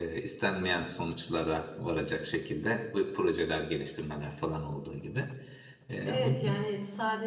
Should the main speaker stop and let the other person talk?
Yes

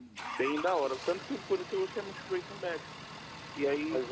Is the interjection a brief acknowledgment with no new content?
No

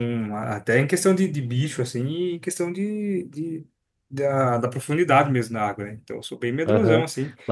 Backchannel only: No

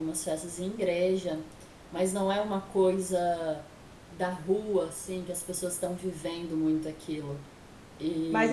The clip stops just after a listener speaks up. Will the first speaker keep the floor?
No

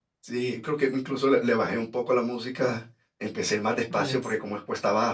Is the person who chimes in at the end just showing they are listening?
Yes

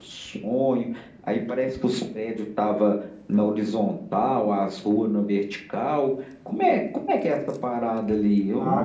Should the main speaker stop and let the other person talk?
Yes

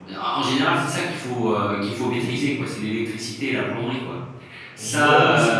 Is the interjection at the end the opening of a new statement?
Yes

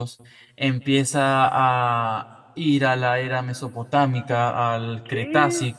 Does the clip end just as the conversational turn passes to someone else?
No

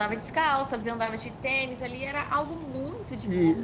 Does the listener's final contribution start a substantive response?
Yes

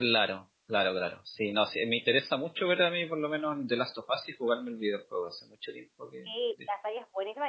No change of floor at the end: No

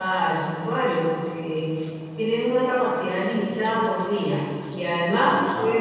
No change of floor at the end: Yes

